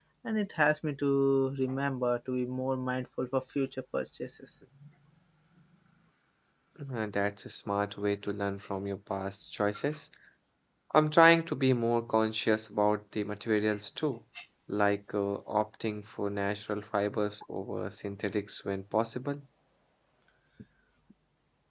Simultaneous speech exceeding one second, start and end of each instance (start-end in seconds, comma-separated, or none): none